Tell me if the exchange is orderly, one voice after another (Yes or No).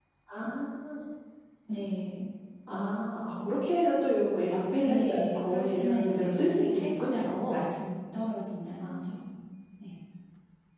No